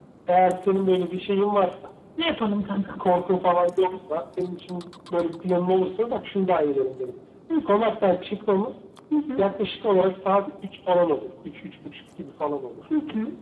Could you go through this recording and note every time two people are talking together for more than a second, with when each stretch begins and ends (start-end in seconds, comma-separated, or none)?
none